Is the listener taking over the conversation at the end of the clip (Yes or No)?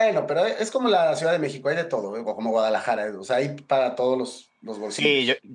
Yes